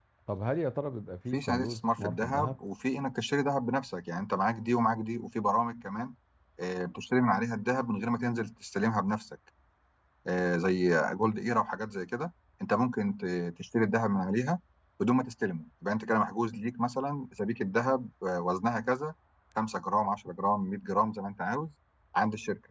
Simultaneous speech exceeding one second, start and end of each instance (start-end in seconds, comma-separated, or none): 1.3-2.5